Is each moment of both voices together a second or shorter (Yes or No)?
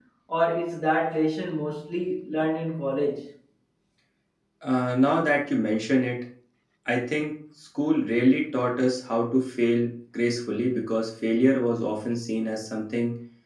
Yes